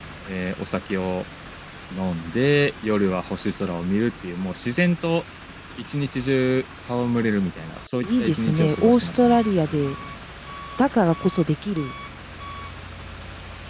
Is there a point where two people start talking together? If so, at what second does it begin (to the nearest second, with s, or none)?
8 s